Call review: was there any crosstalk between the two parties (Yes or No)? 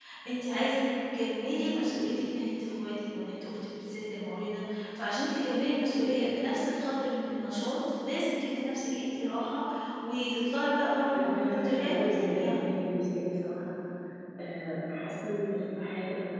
Yes